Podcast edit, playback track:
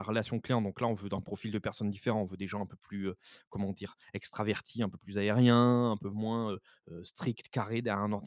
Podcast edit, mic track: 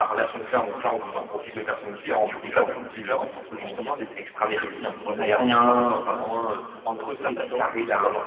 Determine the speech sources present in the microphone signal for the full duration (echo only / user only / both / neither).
both